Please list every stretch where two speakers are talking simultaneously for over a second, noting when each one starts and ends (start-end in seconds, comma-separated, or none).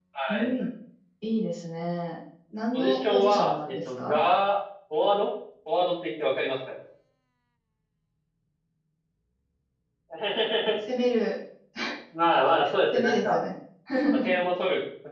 2.7-4.2